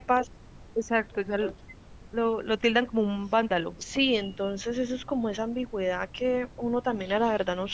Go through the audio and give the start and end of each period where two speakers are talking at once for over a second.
none

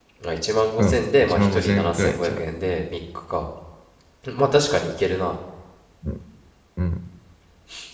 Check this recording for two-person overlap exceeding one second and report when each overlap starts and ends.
0.8-2.4

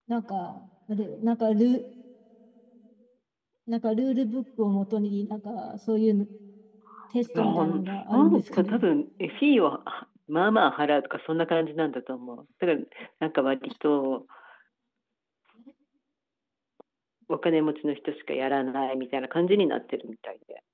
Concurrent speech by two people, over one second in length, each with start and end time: 7.4-8.8

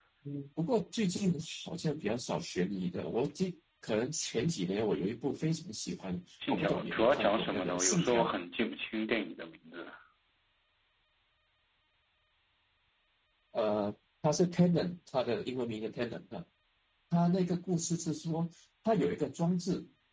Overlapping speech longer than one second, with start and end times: 6.5-8.2

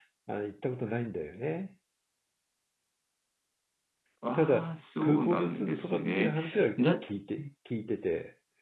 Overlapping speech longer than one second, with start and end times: 4.3-6.4

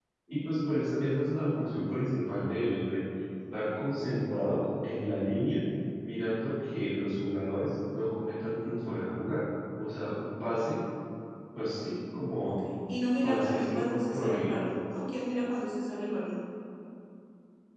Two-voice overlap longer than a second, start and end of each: 13.2-14.5

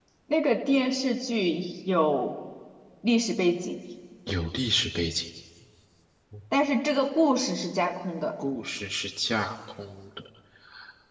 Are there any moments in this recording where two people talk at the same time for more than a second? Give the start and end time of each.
none

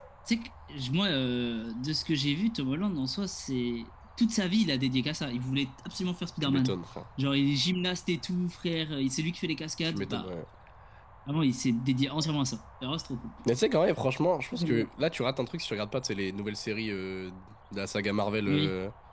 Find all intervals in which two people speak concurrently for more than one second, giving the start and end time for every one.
none

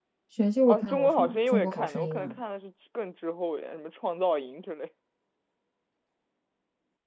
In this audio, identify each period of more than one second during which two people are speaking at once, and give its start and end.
0.7-2.4

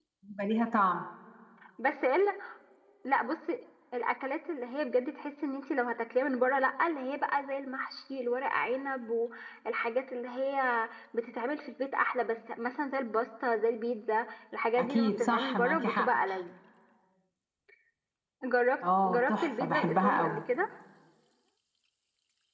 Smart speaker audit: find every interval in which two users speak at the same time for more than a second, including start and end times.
14.8-16.1, 19.0-20.4

